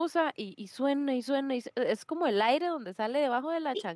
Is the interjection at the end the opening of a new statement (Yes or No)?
Yes